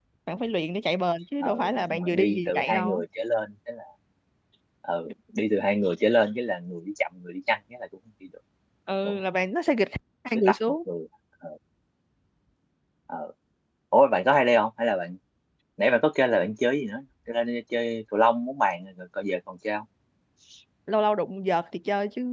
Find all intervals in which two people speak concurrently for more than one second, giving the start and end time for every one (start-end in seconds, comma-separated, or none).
1.4-3.0